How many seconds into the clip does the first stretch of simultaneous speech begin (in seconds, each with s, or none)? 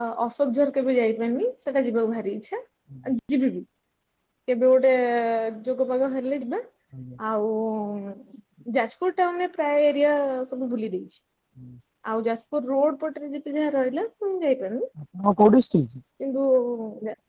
none